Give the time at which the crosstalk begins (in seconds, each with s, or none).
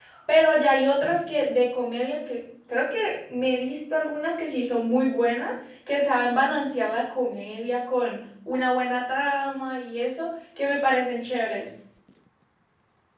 none